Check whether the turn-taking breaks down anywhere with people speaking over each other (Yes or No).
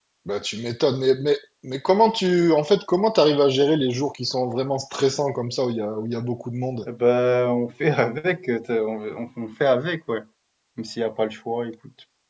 No